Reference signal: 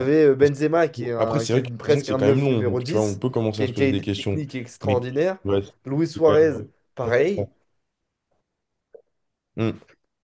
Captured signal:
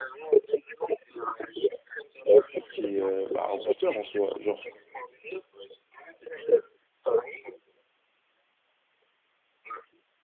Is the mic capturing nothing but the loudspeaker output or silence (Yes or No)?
No